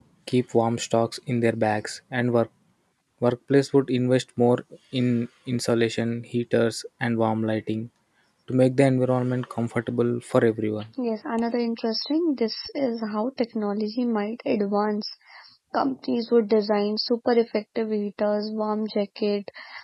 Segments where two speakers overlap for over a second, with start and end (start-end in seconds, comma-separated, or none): none